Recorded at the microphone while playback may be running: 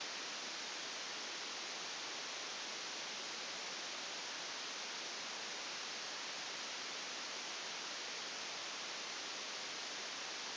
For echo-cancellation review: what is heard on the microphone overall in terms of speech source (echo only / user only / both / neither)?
neither